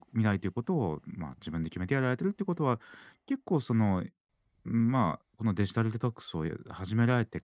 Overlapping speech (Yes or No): No